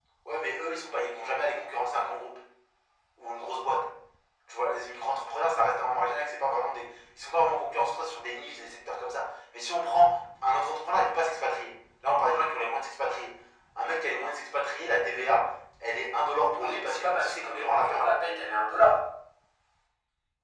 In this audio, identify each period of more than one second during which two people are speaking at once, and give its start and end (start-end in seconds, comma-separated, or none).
16.6-18.1